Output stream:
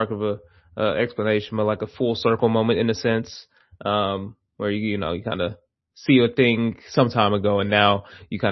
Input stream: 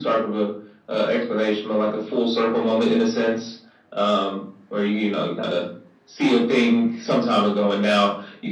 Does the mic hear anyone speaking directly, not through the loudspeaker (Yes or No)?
No